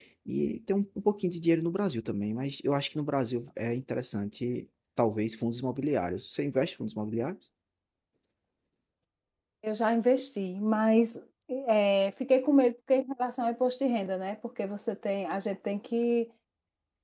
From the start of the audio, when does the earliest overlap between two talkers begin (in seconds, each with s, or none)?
none